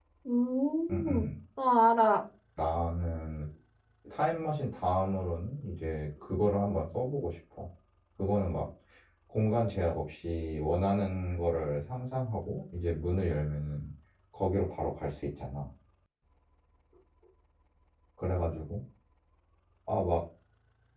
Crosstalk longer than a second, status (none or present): none